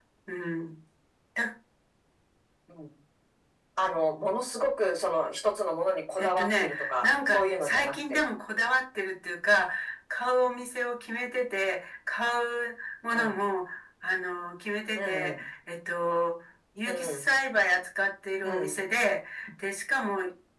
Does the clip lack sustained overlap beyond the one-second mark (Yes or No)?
No